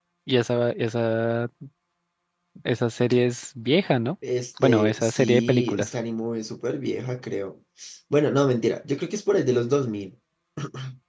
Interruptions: present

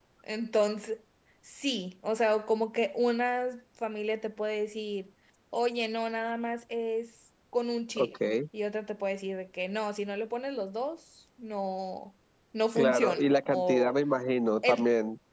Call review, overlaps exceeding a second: present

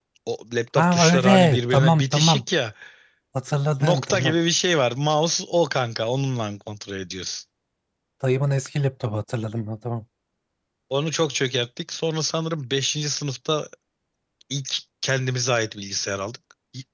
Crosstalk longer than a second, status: present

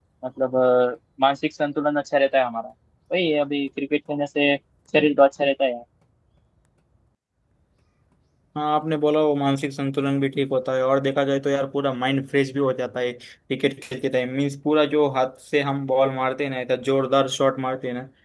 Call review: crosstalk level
none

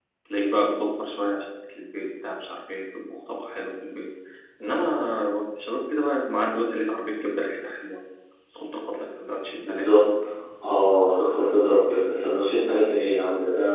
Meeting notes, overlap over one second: none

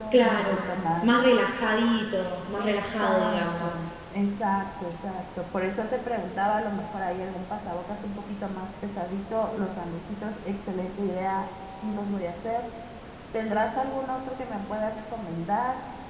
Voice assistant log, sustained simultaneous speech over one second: present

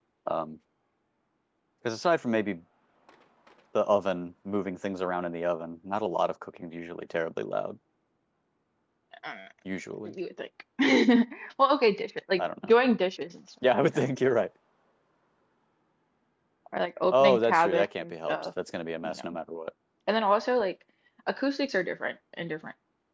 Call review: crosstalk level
present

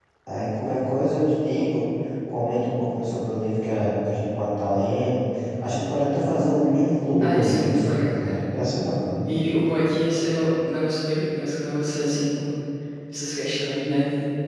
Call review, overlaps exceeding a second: present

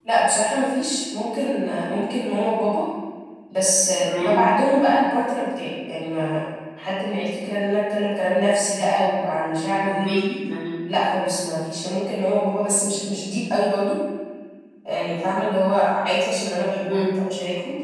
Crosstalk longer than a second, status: none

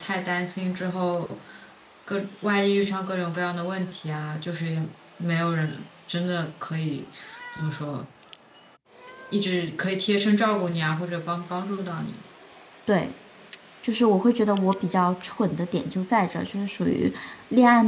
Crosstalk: none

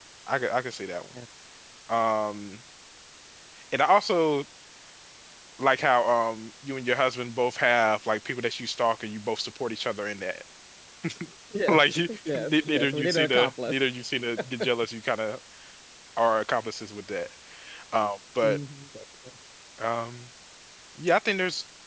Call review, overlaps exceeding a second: present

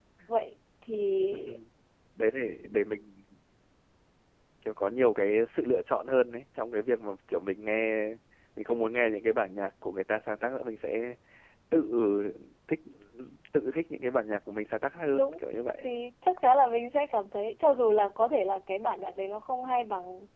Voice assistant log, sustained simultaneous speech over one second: none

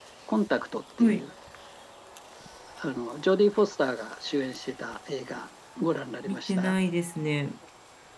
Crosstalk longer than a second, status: none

